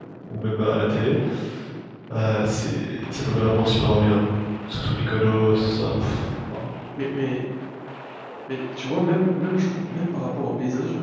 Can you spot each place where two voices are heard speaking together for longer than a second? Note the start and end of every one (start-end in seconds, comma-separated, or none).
none